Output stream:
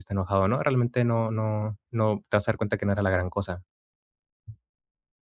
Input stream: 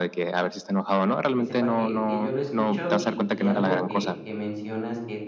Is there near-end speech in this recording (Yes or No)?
Yes